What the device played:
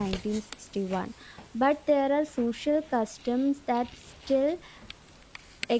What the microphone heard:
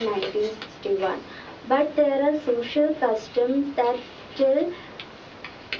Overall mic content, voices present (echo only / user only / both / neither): echo only